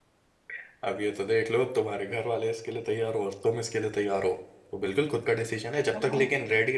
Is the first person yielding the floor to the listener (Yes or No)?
No